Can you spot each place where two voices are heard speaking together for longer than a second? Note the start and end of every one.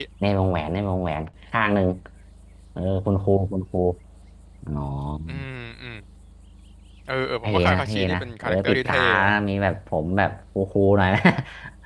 7.4-9.3

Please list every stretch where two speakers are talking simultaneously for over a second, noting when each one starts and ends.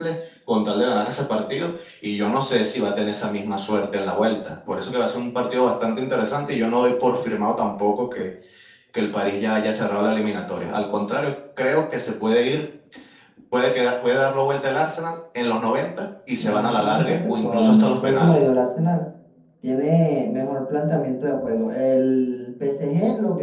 16.4-18.4

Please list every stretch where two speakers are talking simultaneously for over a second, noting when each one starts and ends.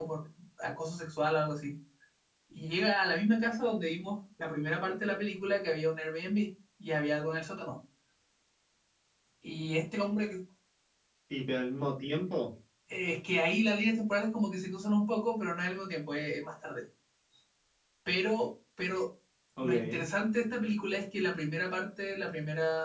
none

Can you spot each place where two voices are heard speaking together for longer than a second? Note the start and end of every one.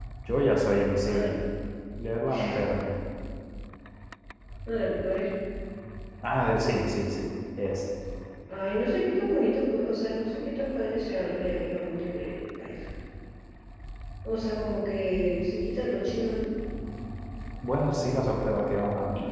none

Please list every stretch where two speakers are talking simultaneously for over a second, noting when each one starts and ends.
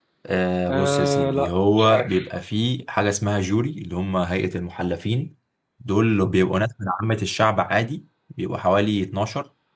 0.7-2.3

